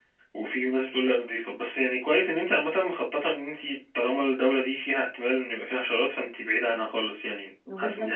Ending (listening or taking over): taking over